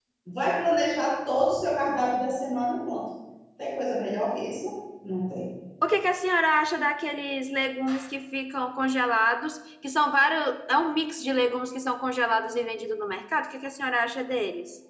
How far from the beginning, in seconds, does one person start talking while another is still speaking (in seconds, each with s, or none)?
none